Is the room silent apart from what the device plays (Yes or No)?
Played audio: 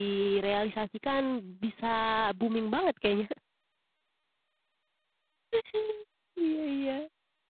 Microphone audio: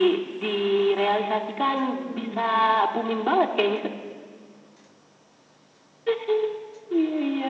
No